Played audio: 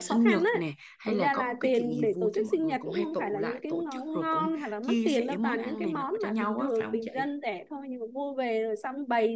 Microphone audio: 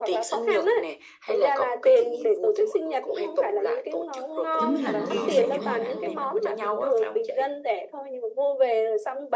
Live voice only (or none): giống như là lâu lâu em cũng hay